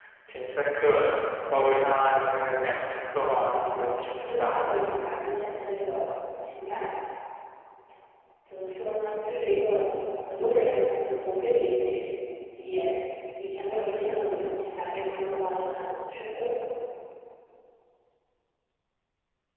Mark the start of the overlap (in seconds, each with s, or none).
3.5 s